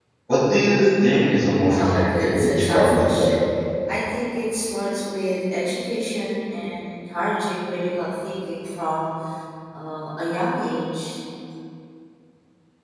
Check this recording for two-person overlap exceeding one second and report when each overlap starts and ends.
1.7-3.3

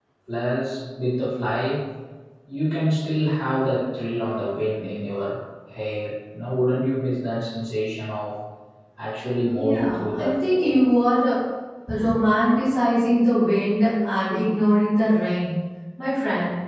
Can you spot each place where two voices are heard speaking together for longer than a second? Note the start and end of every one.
9.5-10.9

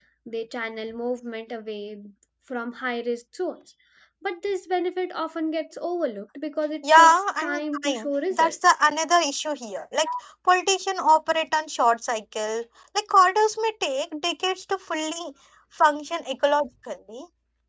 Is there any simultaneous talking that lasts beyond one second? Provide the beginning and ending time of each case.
7.0-8.6

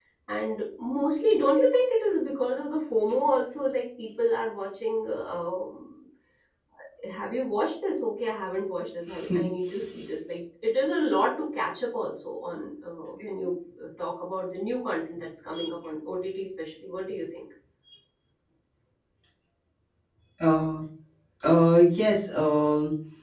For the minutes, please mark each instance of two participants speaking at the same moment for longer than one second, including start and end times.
none

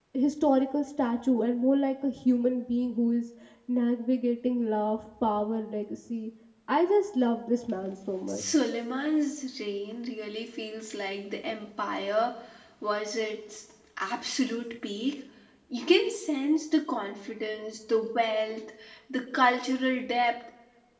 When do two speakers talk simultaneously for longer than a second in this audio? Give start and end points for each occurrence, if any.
none

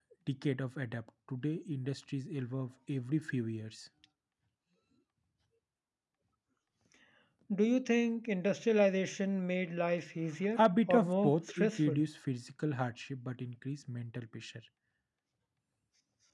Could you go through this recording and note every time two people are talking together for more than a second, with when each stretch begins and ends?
10.6-12.0

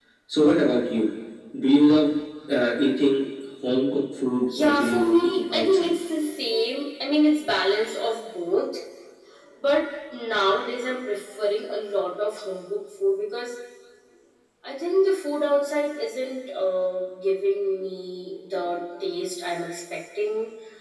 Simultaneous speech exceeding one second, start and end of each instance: 4.6-5.9

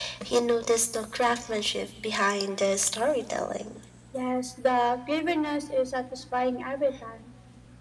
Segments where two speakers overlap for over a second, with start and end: none

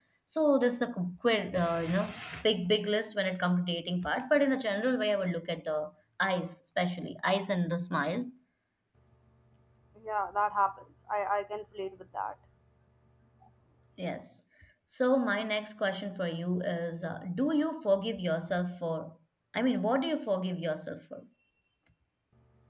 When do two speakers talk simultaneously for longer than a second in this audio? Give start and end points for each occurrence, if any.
none

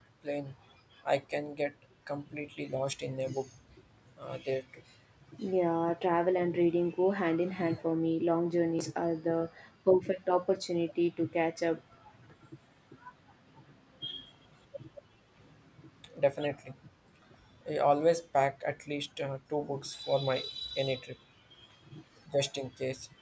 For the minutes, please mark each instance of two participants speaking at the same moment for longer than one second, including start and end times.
none

